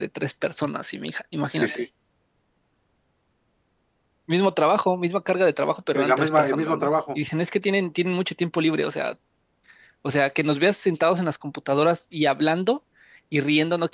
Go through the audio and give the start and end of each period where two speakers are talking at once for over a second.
5.9-7.2

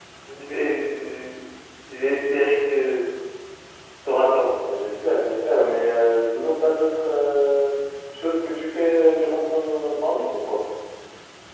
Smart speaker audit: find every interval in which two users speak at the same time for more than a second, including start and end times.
none

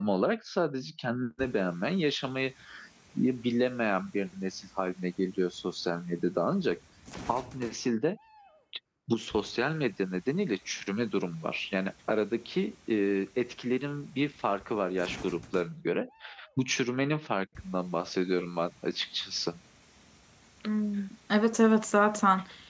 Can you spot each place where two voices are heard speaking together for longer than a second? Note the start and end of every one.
none

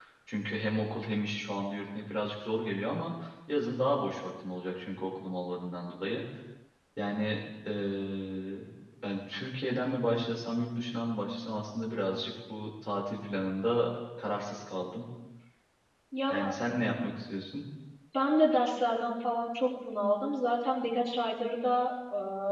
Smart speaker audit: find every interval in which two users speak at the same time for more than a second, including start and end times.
none

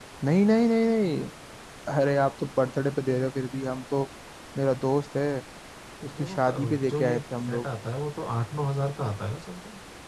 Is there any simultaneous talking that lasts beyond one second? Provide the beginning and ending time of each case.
6.1-7.7

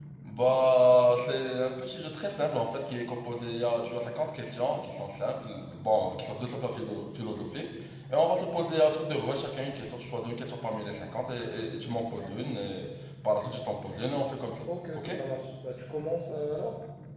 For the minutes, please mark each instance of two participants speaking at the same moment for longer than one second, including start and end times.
none

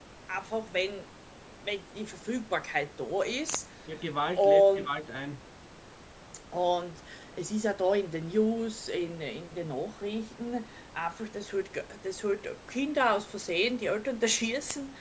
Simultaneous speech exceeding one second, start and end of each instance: none

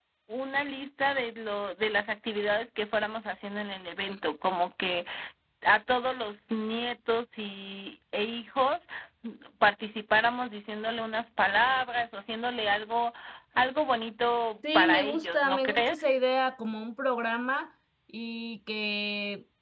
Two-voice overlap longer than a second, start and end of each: 14.7-16.1

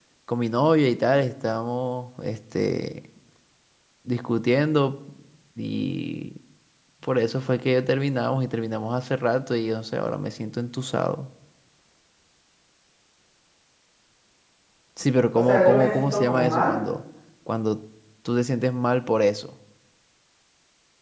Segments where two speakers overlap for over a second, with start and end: 15.4-16.7

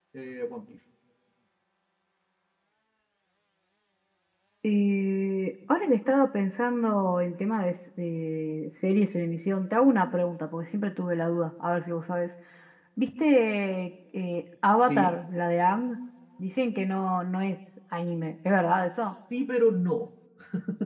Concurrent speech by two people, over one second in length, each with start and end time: none

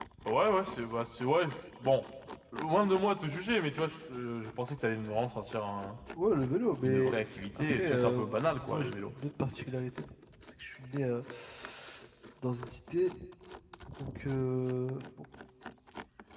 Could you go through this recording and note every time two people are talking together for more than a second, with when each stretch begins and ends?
7.6-8.9

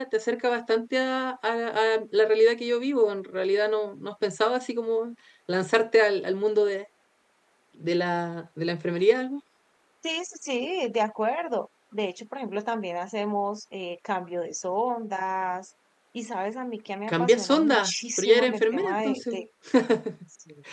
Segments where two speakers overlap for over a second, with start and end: 17.1-19.3

